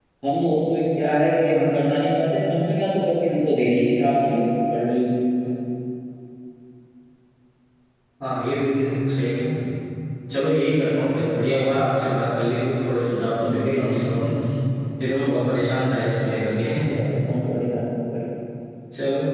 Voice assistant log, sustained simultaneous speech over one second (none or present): none